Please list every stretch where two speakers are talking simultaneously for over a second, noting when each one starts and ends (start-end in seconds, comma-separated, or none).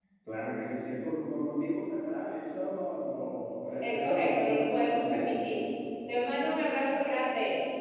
3.8-5.6